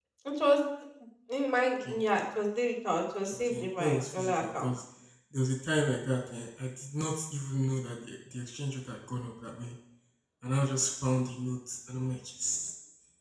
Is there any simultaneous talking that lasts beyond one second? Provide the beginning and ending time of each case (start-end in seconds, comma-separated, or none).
3.5-4.7